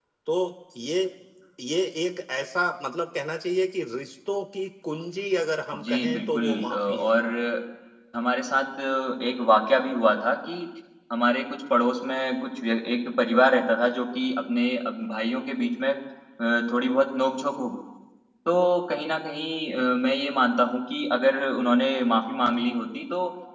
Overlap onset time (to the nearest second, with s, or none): 6 s